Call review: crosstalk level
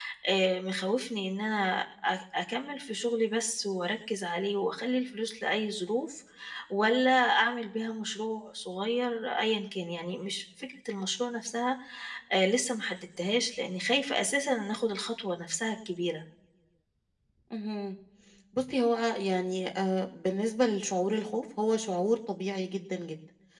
none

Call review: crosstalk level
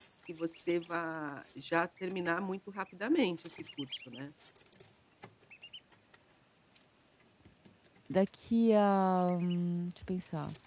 none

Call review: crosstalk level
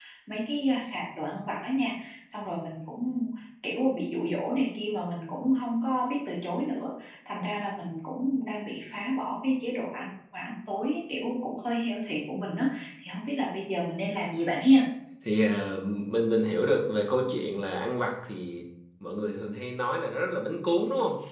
none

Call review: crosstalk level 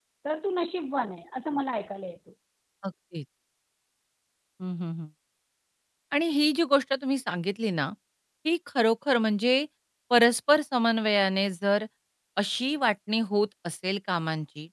none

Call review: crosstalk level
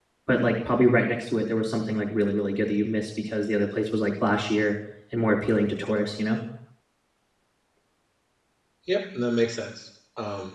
none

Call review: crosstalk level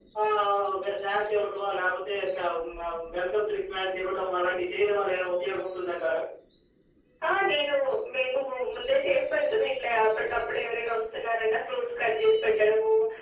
none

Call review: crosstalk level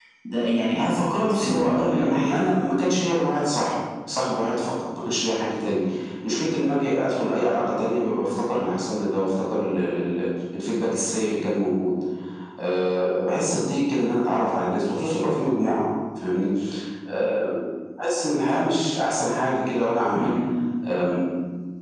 present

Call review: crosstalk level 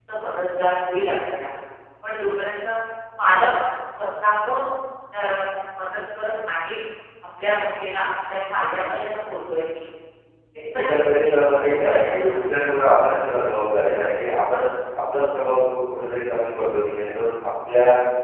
present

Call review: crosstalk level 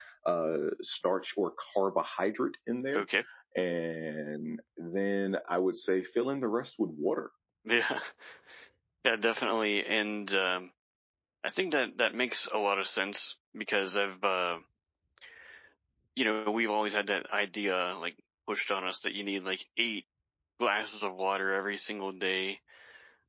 none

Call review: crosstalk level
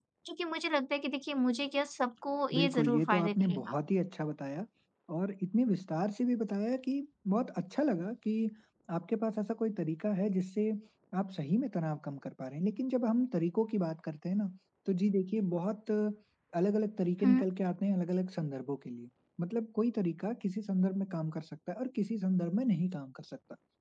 present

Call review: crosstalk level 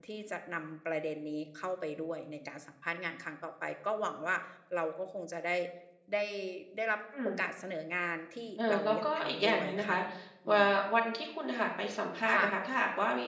present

